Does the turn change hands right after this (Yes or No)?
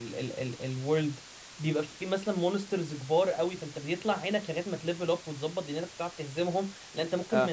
No